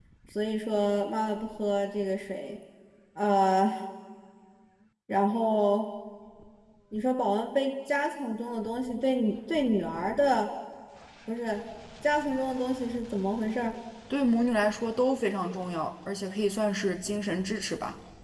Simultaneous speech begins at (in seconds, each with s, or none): none